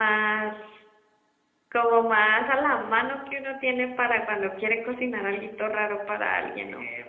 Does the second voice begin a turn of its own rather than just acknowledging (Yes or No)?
No